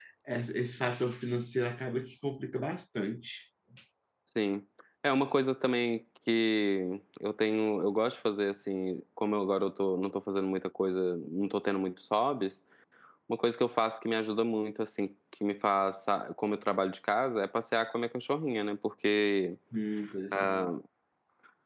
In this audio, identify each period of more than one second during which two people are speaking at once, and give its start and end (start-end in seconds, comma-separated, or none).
none